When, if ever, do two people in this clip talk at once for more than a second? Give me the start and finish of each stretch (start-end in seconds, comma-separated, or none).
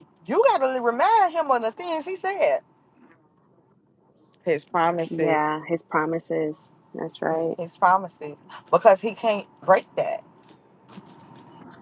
none